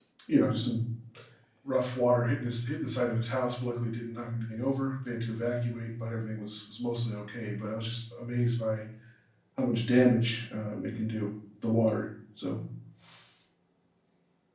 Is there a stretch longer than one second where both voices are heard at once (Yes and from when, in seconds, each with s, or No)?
No